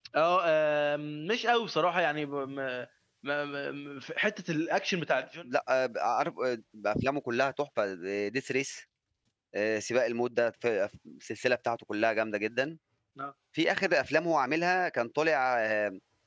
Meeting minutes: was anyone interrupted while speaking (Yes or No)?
No